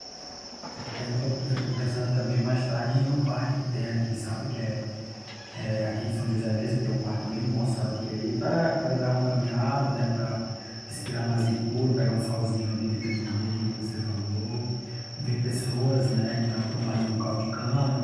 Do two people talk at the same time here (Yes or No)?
No